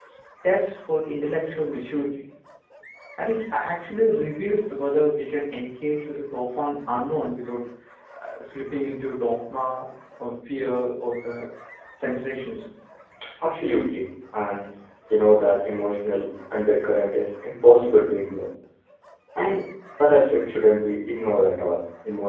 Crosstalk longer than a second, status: none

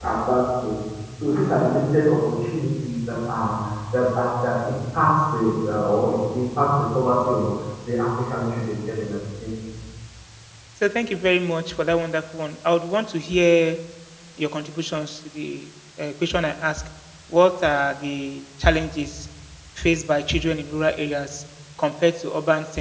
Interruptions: none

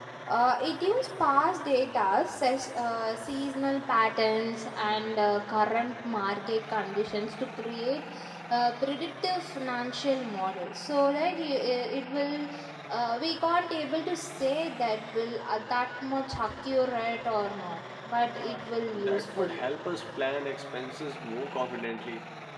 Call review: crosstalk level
present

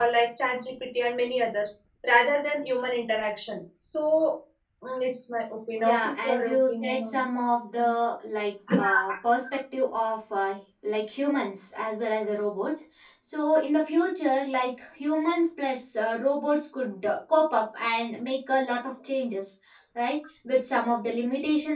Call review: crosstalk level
present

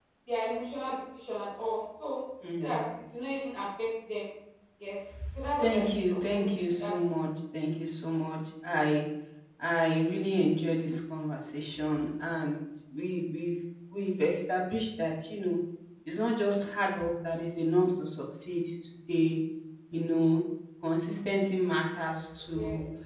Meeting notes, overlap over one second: present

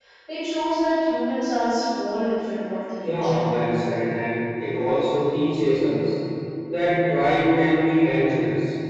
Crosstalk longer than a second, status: none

